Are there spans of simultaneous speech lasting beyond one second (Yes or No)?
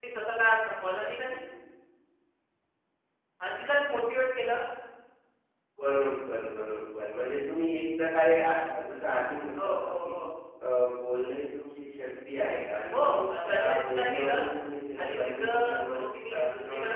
Yes